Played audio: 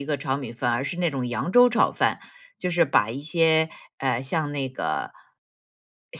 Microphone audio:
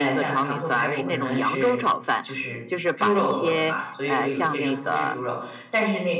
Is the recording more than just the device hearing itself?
Yes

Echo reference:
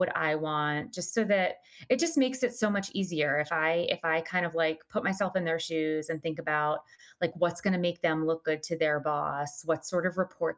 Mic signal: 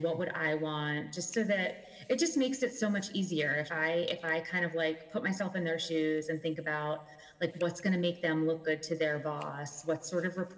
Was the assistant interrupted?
No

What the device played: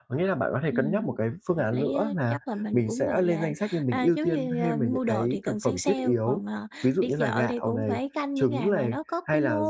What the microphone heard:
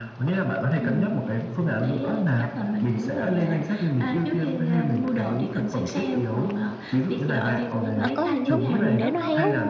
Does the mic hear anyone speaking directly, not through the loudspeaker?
Yes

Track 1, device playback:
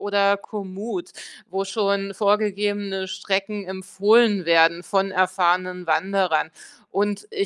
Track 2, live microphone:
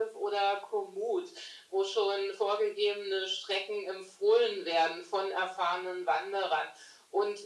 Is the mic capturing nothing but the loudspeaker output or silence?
Yes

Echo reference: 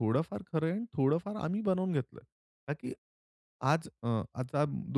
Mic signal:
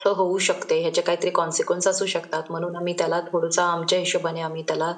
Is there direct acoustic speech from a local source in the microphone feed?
Yes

